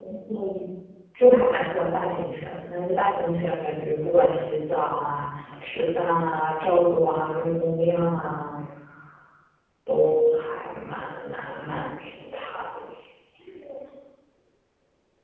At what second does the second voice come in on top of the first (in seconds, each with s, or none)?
none